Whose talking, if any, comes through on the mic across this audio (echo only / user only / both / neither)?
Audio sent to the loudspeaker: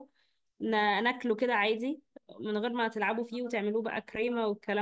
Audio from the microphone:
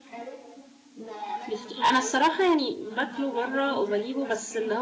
both